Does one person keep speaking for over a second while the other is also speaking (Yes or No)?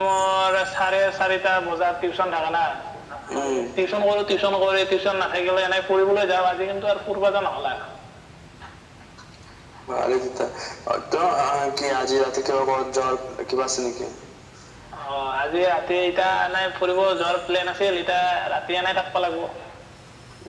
No